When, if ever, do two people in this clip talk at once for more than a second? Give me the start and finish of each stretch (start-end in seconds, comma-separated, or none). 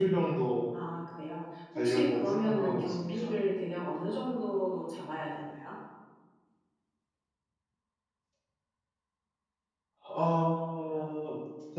1.8-3.3